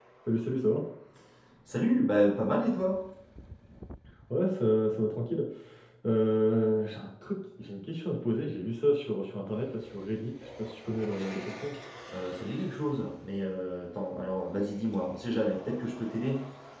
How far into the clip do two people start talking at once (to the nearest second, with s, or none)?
none